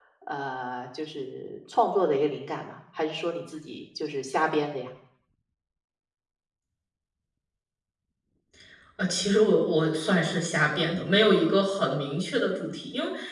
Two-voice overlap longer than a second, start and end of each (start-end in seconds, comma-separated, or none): none